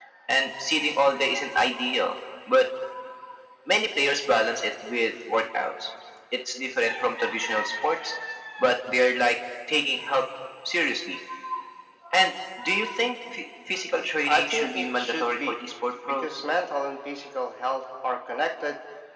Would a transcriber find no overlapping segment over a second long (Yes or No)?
No